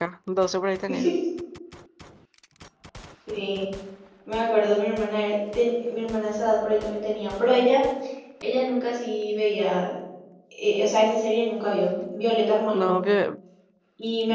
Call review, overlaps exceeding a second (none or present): none